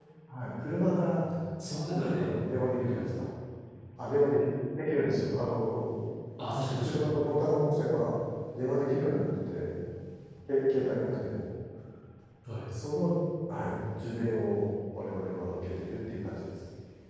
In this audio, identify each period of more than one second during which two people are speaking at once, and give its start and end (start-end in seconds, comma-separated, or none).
none